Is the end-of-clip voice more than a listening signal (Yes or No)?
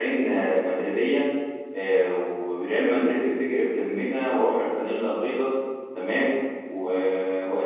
No